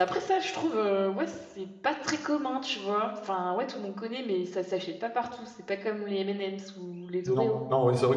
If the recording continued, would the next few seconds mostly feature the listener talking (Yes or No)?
Yes